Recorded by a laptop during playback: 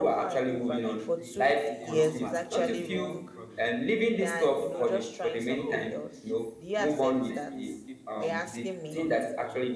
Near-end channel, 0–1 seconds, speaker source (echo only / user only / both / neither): echo only